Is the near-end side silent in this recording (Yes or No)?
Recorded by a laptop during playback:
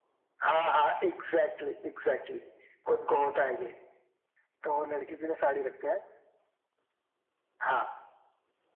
Yes